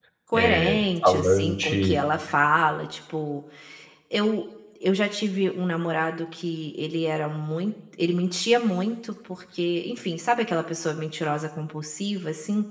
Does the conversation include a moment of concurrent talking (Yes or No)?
Yes